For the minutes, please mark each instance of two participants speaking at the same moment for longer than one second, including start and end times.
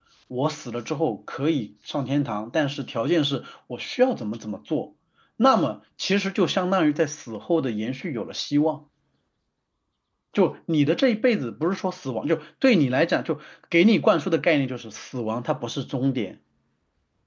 none

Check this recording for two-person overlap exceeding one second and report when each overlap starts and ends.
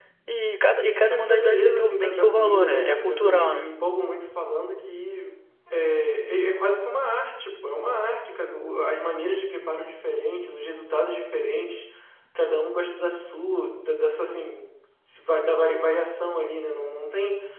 0.8-3.7

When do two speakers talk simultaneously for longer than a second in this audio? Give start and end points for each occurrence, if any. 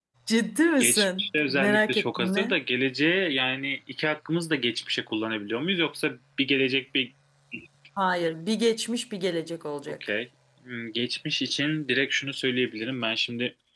0.8-2.6

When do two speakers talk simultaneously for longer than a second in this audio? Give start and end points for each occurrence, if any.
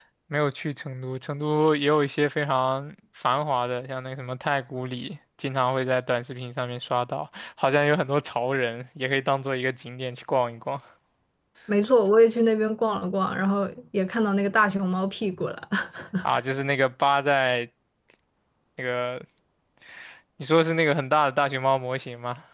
none

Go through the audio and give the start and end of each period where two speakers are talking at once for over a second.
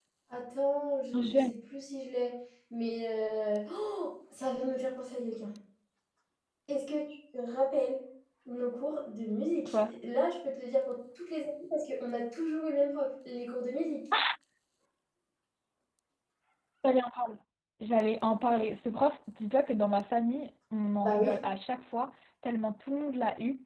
none

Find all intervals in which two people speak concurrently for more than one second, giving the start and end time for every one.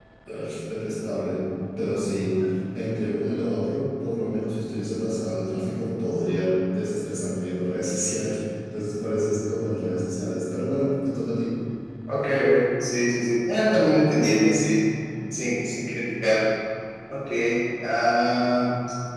none

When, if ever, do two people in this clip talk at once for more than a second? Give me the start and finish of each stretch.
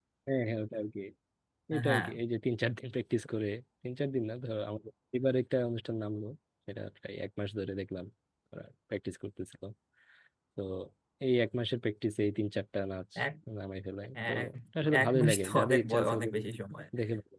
15.0-16.3

